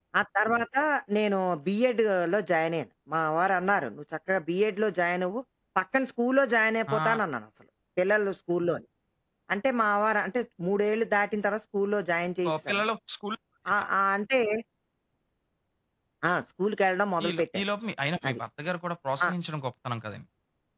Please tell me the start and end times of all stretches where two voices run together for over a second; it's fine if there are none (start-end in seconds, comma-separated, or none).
none